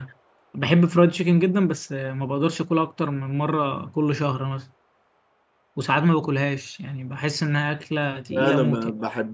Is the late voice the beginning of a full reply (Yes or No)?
Yes